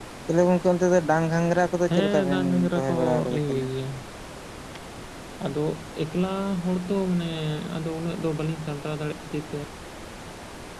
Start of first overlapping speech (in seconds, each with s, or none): 1.9 s